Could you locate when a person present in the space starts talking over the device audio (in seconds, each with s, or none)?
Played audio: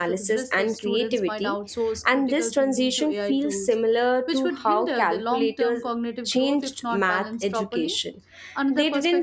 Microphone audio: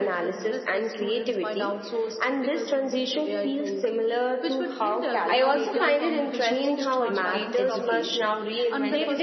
5.3 s